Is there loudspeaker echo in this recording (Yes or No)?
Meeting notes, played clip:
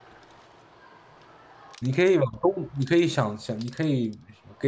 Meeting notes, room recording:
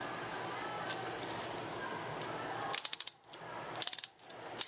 No